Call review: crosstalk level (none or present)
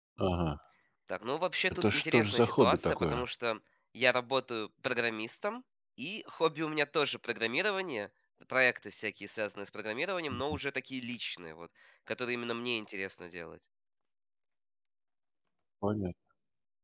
present